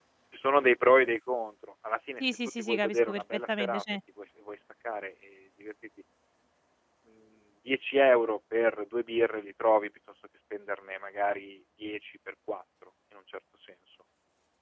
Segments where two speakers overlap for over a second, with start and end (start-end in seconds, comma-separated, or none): 2.2-3.8